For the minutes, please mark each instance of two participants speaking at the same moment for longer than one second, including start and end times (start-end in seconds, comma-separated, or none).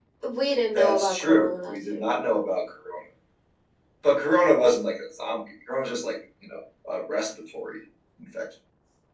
0.7-2.1